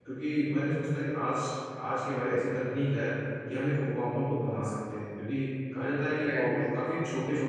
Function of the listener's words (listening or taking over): listening